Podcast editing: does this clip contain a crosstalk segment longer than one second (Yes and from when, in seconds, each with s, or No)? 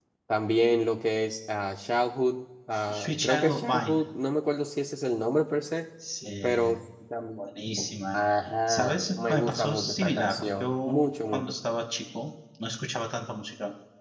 Yes, from 2.7 s